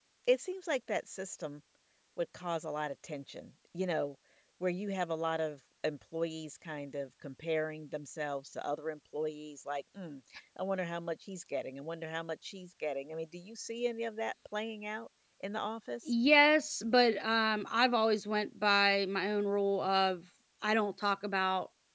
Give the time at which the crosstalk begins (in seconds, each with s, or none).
none